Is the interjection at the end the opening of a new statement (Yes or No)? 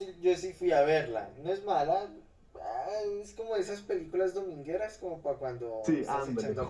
Yes